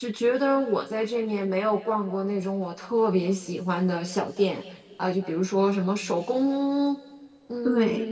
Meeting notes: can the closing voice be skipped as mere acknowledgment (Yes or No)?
Yes